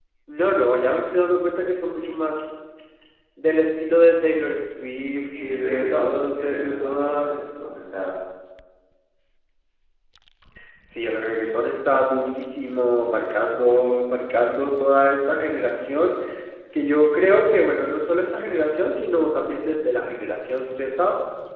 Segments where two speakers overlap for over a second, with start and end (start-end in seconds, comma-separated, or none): 5.4-7.3